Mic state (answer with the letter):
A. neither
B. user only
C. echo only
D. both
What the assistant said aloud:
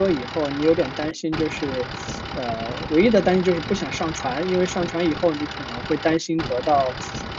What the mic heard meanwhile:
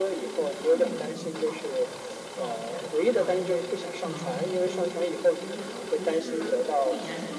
D